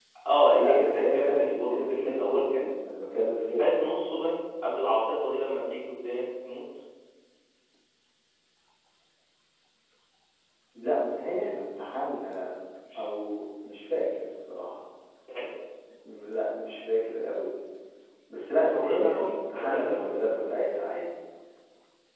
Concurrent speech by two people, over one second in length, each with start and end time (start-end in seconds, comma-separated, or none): 0.6-2.6, 18.7-20.2